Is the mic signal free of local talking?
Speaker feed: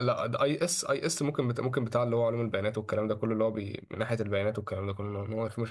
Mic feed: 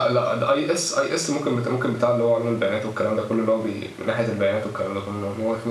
Yes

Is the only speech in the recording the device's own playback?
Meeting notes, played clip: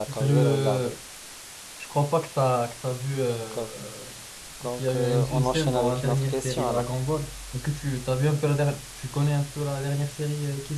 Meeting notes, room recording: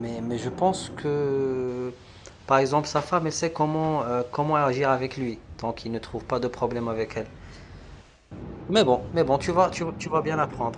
No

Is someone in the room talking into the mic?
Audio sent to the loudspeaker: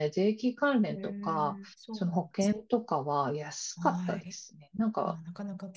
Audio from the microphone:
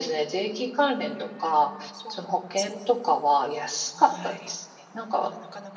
No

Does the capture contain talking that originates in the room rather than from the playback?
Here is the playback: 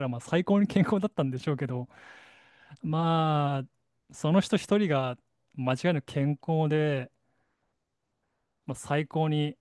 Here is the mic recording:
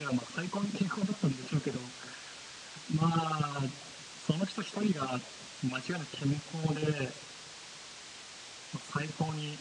No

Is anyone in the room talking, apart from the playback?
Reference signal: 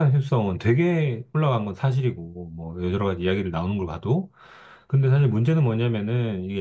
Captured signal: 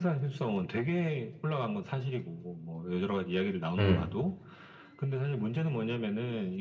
Yes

